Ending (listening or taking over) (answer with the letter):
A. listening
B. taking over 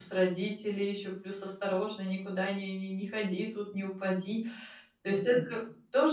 A